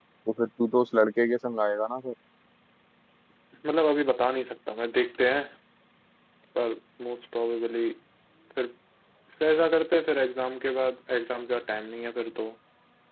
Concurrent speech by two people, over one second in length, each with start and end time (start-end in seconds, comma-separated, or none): none